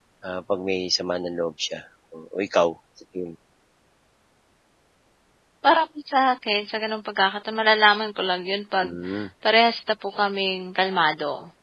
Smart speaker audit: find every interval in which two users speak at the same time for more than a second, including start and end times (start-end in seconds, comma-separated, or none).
none